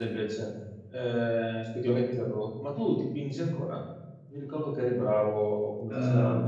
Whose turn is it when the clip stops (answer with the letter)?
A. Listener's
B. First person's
A